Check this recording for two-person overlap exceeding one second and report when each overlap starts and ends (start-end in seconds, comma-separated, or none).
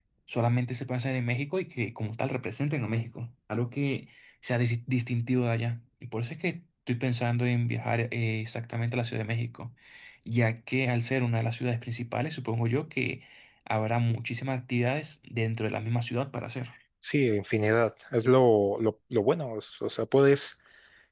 none